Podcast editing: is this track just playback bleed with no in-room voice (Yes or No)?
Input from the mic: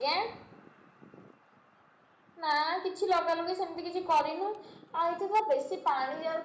No